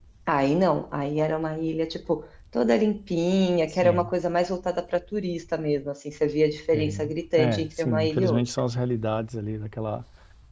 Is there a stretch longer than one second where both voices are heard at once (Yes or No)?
Yes